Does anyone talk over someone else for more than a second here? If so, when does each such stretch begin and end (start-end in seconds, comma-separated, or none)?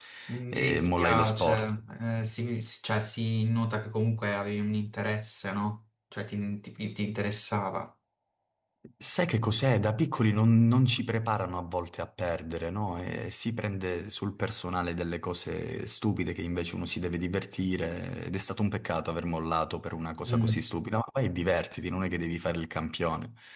0.5-1.7